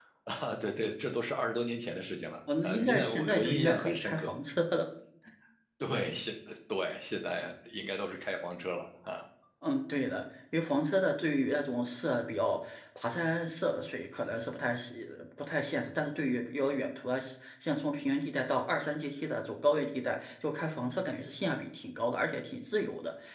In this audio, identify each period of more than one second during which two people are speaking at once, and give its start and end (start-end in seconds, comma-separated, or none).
2.6-4.3